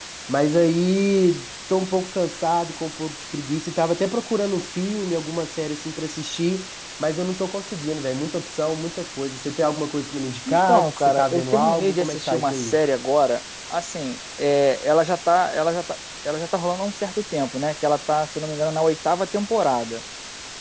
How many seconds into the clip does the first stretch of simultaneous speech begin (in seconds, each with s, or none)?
10.5 s